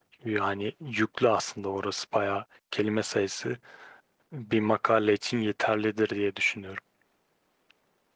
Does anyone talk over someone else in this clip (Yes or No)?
No